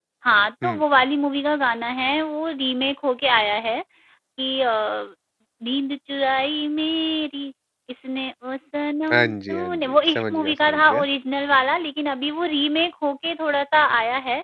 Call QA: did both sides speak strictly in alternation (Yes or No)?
No